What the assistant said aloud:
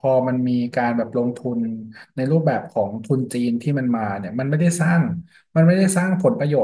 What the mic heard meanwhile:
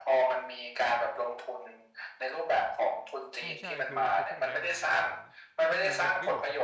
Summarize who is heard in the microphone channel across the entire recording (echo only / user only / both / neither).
both